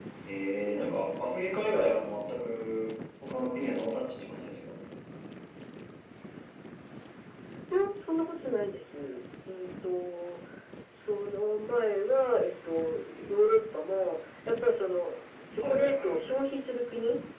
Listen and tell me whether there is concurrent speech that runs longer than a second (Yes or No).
Yes